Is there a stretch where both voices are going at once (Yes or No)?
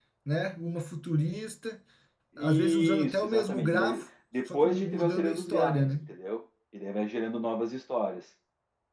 Yes